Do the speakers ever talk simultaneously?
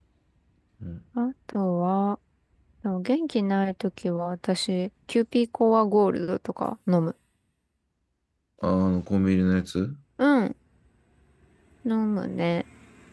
No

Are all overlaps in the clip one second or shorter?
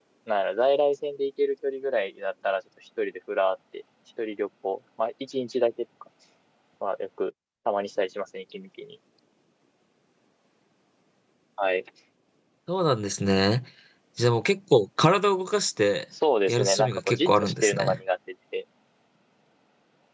No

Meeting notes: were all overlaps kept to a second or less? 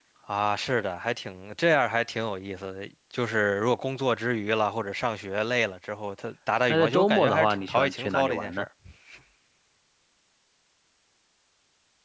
No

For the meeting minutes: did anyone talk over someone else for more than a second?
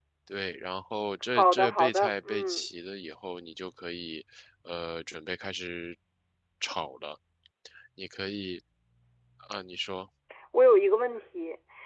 Yes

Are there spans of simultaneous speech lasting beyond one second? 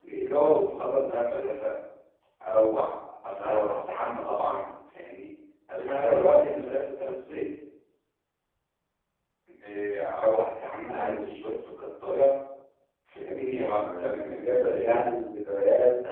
Yes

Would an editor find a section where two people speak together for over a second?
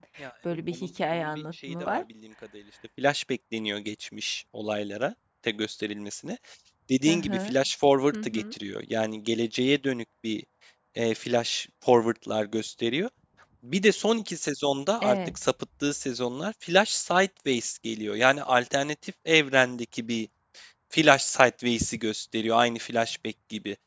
Yes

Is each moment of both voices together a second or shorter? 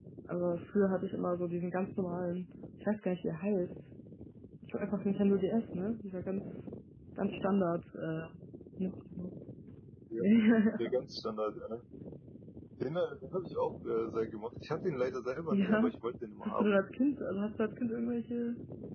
Yes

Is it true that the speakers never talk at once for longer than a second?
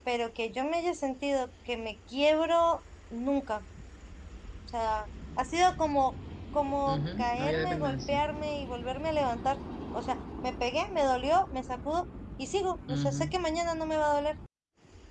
No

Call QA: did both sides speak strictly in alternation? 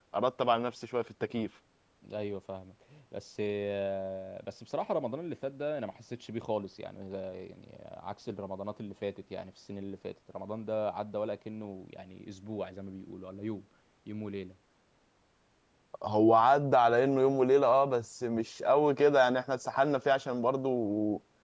Yes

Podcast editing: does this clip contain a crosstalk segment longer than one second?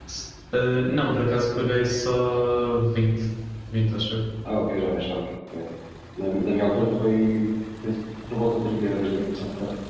No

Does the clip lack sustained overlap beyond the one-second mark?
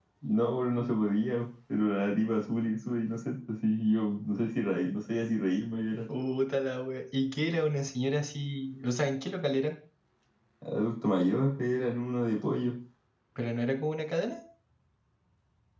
Yes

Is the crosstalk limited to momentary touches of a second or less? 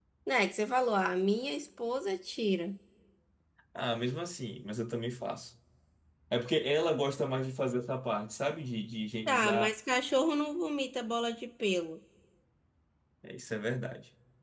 Yes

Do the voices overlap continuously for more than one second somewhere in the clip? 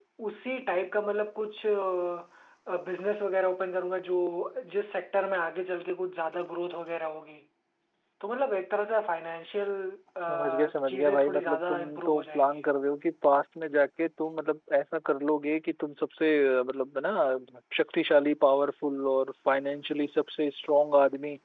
Yes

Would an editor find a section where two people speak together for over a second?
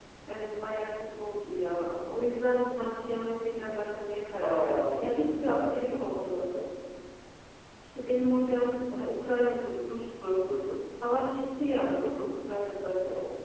Yes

